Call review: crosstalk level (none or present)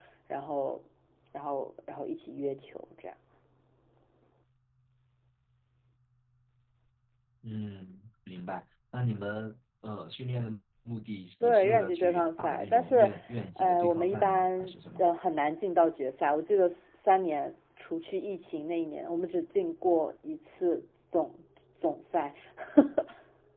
present